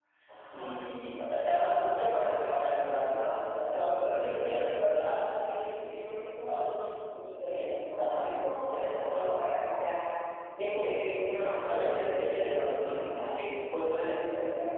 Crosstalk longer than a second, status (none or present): present